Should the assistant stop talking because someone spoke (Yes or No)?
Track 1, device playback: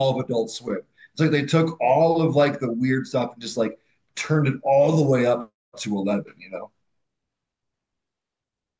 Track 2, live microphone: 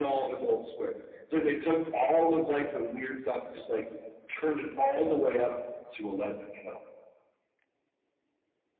No